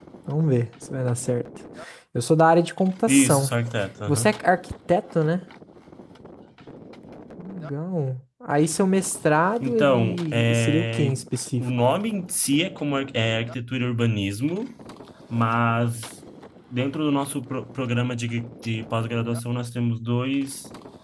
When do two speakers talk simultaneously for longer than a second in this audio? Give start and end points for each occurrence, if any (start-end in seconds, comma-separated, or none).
9.6-11.2